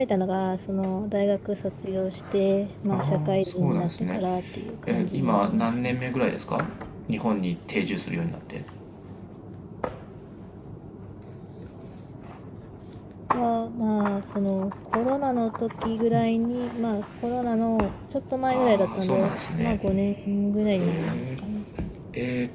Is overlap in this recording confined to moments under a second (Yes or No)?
No